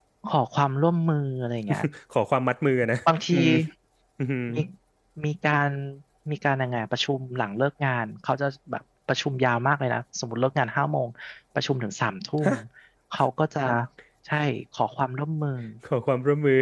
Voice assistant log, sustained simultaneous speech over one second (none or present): none